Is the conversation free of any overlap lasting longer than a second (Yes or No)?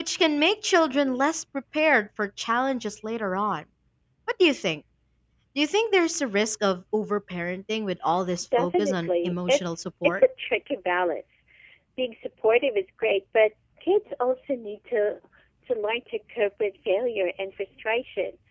No